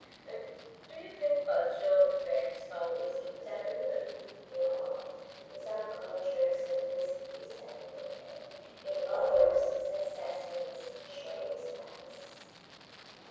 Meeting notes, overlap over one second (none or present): present